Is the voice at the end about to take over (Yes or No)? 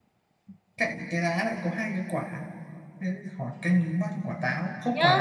Yes